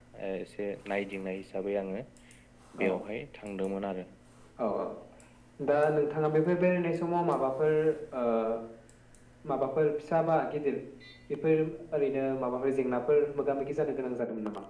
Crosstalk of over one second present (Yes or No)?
No